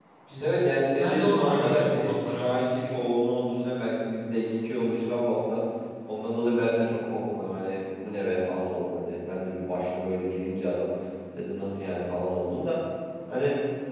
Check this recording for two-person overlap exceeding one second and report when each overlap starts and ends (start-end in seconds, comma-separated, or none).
0.9-2.4